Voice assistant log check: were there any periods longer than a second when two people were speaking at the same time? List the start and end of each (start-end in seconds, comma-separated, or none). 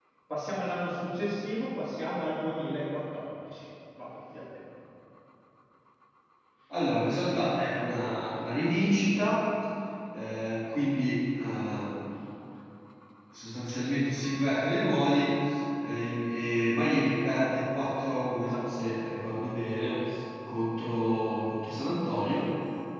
none